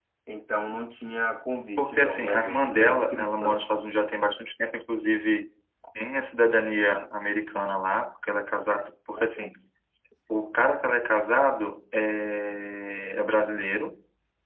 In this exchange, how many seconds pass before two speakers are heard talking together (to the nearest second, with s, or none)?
2 s